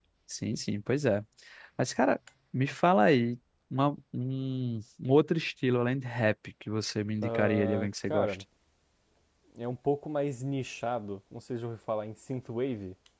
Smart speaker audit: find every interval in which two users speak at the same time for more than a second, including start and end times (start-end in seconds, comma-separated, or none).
7.2-8.4